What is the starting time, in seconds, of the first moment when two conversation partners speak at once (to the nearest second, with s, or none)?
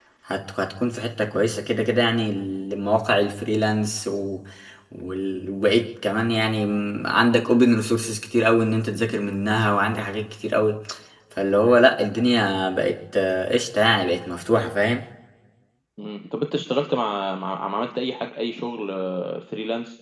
none